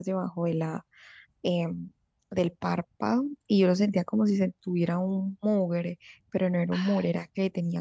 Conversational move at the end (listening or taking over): listening